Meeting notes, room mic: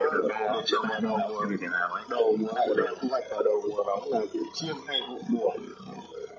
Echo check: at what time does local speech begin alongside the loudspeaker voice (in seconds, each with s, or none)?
none